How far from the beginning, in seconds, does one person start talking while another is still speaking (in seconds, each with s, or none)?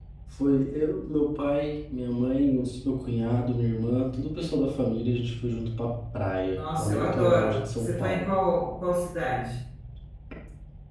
6.5 s